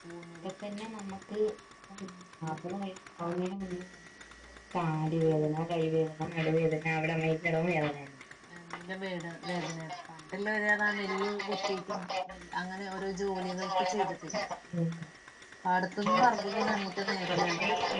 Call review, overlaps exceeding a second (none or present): present